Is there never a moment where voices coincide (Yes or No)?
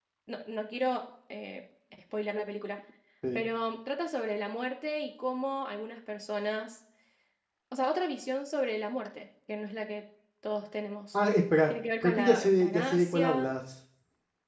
No